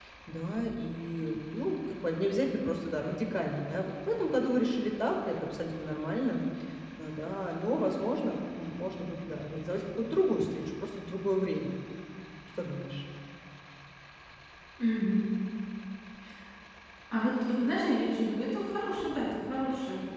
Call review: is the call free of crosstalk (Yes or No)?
Yes